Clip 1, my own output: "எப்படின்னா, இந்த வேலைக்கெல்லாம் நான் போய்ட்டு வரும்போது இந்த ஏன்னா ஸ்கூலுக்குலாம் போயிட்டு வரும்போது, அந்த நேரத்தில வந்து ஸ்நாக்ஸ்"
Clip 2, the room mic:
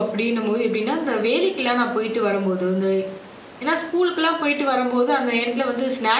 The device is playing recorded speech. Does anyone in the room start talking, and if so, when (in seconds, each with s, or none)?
none